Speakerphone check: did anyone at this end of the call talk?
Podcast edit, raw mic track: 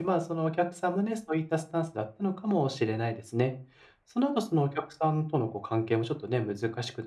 Yes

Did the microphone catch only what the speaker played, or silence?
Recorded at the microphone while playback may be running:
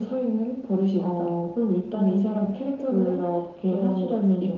Yes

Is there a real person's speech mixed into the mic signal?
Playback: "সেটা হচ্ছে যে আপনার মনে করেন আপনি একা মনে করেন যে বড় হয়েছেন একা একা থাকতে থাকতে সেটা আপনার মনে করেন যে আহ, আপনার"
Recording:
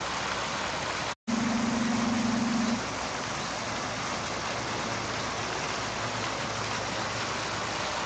No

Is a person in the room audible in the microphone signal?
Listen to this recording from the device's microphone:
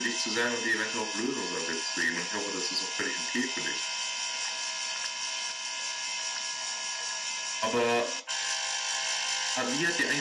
No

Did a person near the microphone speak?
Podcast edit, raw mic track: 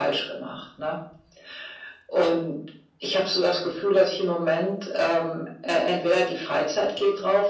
No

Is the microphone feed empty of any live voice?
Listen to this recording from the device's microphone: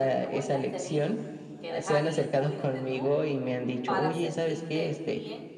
No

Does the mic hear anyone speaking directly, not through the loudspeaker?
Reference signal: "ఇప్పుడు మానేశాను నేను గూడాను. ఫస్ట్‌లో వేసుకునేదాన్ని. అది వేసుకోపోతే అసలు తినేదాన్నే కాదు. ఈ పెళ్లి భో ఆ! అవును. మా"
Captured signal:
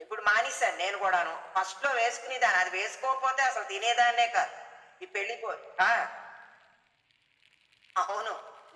No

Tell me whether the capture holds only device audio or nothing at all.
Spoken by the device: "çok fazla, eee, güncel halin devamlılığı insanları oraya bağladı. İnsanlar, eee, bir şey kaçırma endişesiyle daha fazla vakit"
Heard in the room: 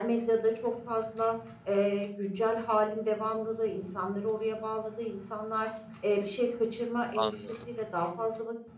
No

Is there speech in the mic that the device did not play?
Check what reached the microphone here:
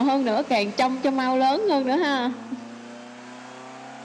No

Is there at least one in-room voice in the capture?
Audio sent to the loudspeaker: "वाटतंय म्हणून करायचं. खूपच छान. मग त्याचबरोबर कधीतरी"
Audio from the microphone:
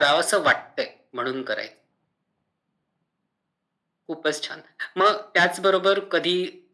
No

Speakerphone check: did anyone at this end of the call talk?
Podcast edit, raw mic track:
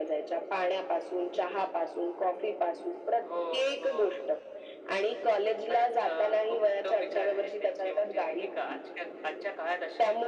No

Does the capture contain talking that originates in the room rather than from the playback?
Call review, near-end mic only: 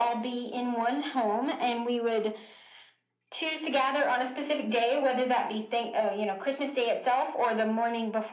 No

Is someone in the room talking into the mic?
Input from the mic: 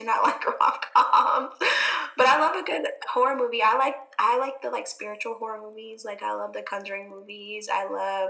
No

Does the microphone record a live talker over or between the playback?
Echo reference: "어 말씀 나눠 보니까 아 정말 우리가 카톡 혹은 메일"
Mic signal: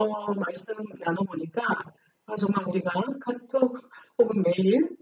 No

